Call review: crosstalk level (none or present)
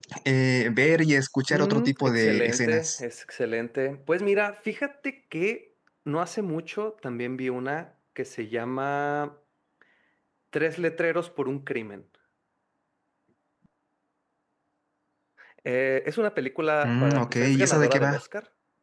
present